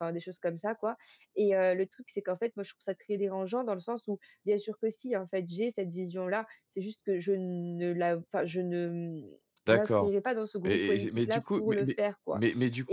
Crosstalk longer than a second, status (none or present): present